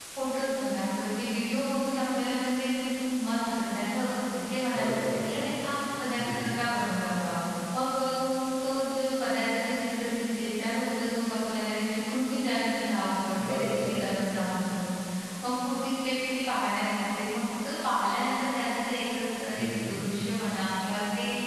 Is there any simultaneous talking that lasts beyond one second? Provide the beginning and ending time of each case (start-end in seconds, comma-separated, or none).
none